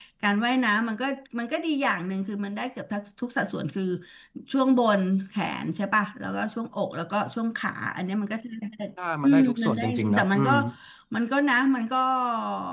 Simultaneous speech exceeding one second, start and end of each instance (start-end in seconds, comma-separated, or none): 9.2-10.5